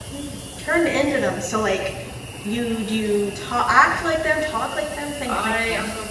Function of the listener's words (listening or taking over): taking over